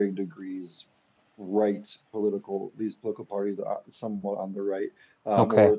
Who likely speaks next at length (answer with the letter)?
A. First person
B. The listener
A